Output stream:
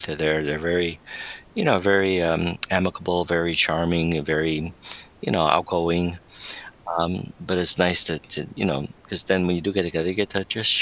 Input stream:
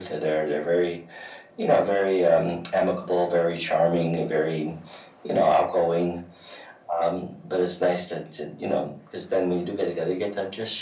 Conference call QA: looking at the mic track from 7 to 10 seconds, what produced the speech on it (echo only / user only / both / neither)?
echo only